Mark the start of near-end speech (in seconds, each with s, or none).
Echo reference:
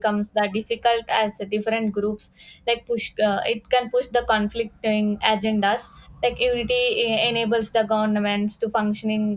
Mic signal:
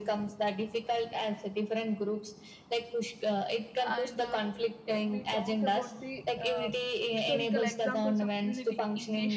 3.8 s